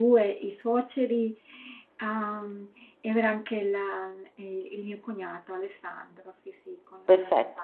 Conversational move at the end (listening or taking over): taking over